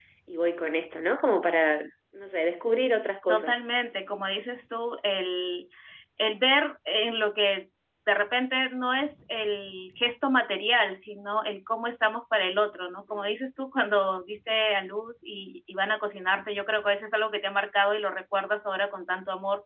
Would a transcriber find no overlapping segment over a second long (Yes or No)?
Yes